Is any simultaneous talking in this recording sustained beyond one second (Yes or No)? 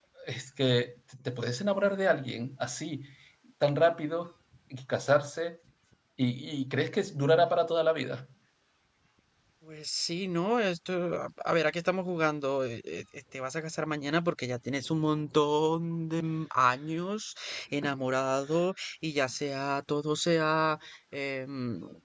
No